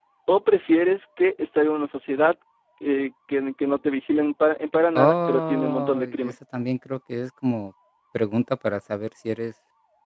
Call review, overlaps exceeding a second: present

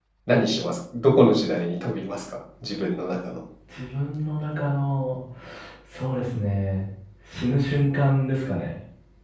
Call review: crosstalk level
none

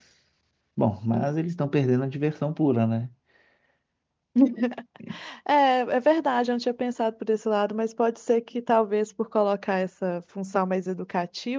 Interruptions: none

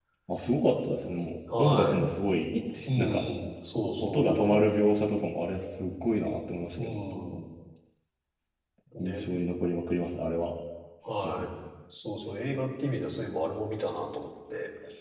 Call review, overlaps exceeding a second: none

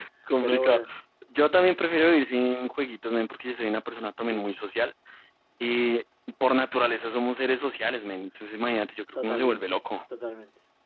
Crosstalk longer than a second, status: none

